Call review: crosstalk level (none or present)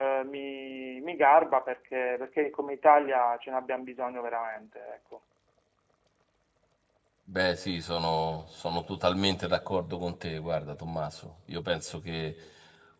none